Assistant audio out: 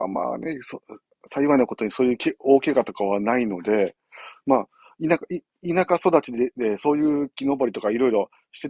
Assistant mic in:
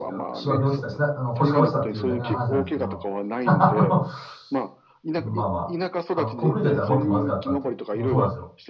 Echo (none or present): present